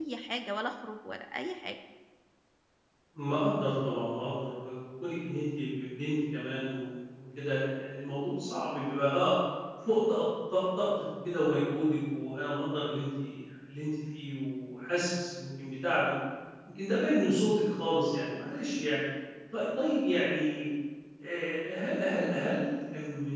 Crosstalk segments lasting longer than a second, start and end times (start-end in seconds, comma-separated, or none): none